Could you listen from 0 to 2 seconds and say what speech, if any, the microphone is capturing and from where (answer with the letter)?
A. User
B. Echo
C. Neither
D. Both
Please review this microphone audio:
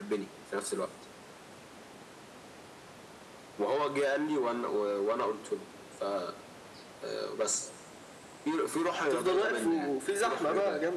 B